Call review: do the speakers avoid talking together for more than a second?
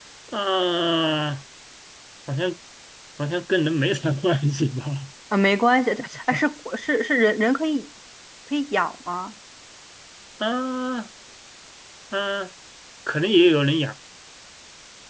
Yes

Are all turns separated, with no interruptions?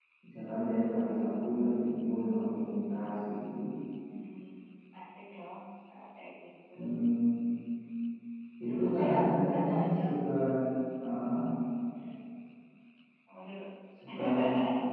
No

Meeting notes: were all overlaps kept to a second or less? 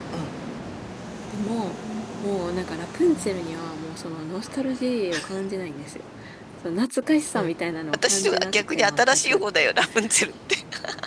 No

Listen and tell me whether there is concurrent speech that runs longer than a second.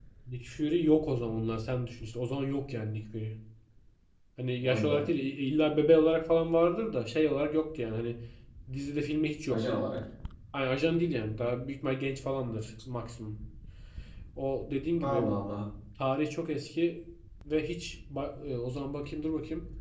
No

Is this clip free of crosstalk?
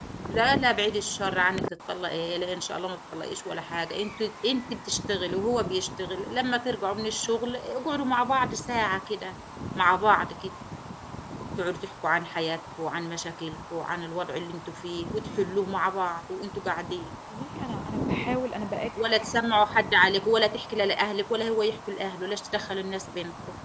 Yes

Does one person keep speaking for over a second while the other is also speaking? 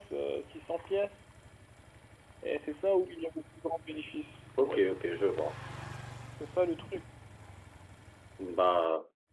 No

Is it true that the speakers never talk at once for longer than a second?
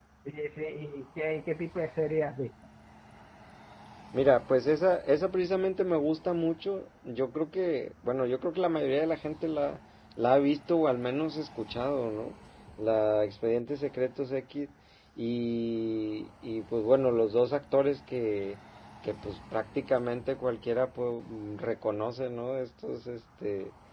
Yes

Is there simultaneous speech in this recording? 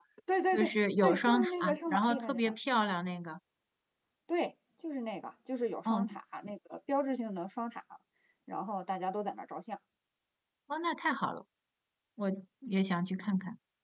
Yes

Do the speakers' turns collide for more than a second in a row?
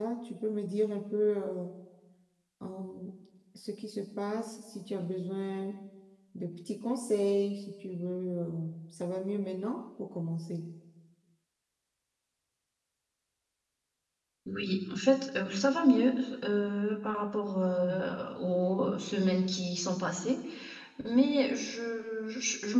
No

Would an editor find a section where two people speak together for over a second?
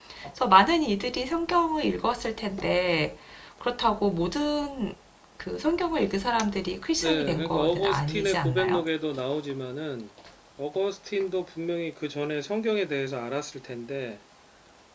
Yes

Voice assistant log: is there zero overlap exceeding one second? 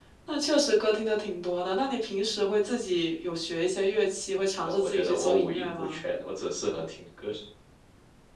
No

